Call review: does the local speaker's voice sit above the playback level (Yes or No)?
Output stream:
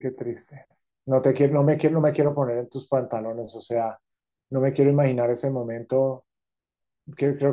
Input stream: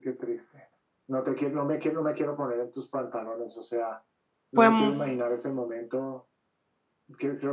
Yes